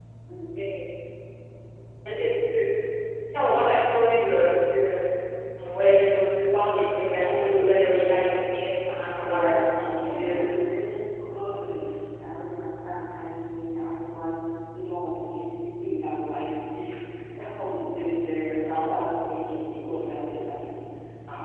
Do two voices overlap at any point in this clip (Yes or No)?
Yes